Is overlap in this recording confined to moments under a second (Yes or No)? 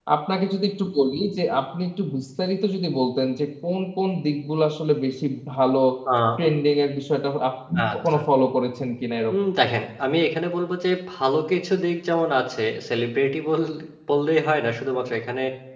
Yes